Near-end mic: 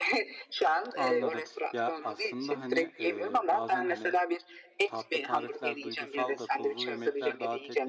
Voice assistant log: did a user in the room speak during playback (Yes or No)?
Yes